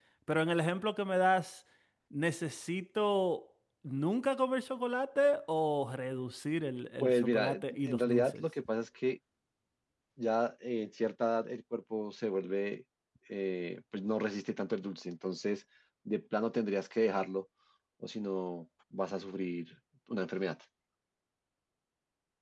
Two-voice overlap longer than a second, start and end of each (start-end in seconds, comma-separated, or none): 7.0-8.4